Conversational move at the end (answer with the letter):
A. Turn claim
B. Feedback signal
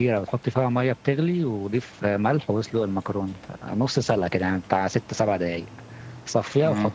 B